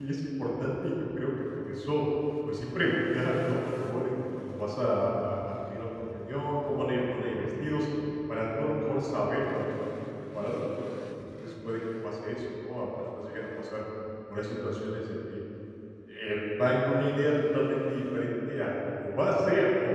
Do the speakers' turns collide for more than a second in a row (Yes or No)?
No